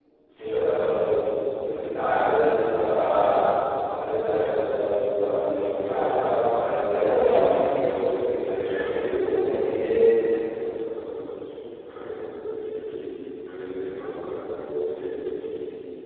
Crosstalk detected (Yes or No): Yes